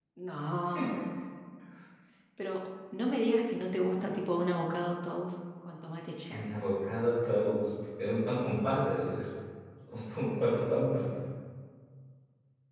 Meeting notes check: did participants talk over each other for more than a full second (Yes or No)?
No